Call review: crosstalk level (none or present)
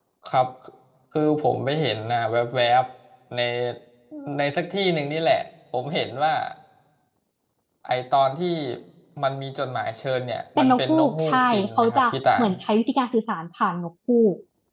present